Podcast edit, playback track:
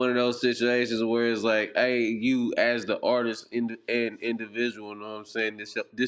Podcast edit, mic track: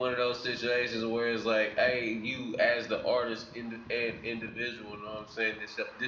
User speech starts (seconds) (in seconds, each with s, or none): none